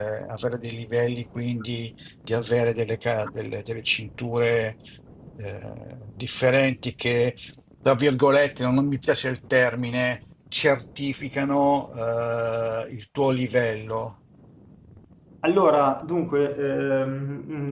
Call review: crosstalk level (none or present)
none